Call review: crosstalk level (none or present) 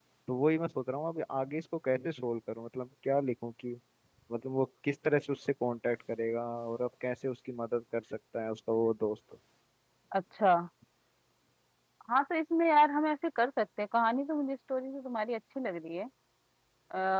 none